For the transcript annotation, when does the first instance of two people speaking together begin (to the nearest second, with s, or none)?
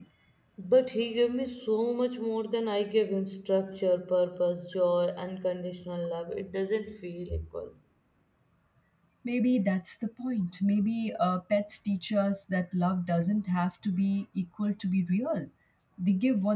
none